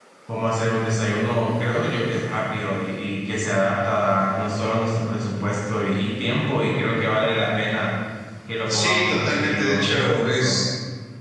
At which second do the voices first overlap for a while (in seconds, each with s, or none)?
8.7 s